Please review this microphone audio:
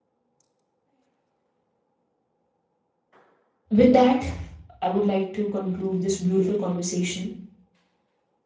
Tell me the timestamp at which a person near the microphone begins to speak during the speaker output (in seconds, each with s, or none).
3.8 s